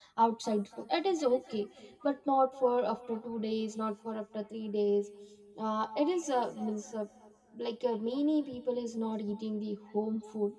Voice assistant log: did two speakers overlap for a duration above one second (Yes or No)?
No